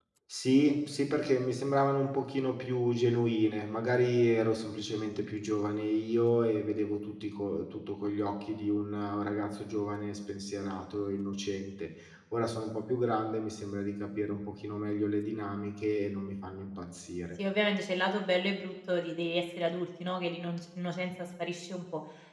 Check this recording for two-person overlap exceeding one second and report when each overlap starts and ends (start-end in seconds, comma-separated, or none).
none